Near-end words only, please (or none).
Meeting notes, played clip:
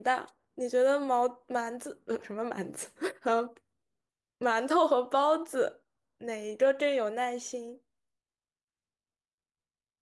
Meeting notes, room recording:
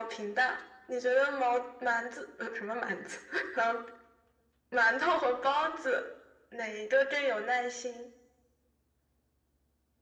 none